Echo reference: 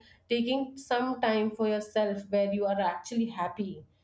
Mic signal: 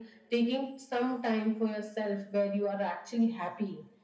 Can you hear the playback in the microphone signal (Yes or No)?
Yes